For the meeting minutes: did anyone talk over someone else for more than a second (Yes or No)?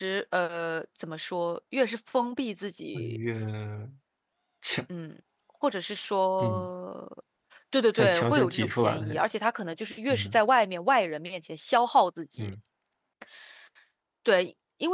Yes